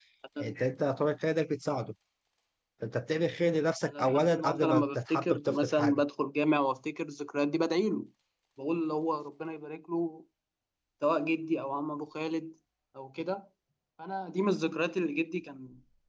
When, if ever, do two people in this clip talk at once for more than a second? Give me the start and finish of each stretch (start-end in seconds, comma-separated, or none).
3.8-6.0